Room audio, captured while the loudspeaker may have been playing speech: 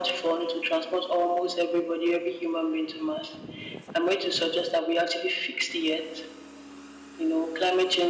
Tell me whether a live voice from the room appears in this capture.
No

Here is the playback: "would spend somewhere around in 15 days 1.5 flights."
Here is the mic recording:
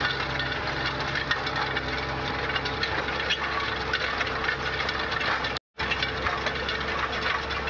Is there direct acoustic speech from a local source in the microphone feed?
No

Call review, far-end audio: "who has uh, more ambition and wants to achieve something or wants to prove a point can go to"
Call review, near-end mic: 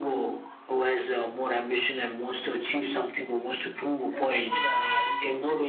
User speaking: Yes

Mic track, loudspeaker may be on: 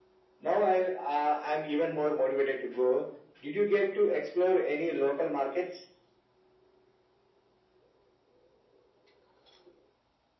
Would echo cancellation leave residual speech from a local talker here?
No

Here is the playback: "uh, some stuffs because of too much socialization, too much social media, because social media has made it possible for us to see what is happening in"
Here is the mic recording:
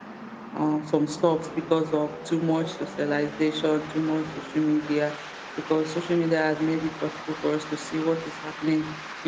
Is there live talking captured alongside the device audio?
No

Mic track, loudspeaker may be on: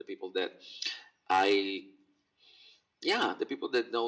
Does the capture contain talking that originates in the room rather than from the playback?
No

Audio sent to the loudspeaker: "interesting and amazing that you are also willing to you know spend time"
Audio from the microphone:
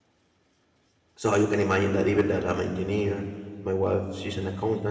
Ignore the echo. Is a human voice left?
Yes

